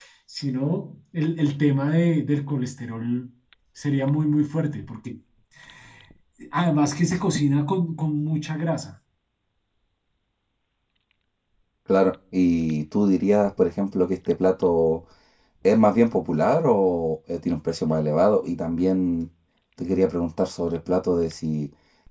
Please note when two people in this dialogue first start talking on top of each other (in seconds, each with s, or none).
none